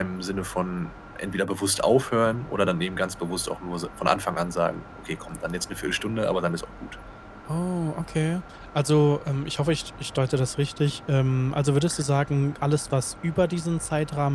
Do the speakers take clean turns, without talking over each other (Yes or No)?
Yes